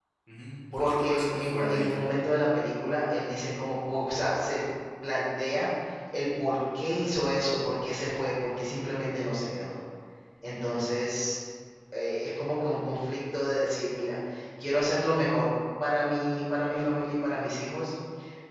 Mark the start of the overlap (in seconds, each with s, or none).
0.8 s